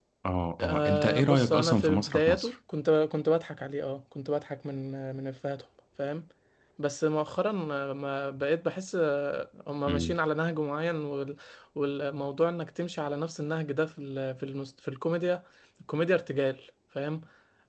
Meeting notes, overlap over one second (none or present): present